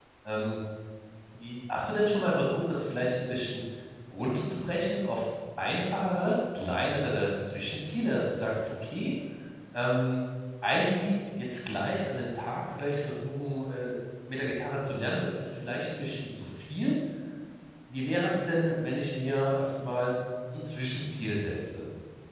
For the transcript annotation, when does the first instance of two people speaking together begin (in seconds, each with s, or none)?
none